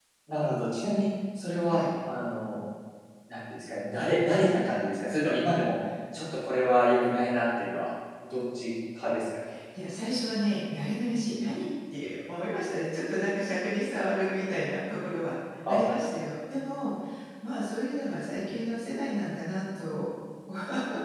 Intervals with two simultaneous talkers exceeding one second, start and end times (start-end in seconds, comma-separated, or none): none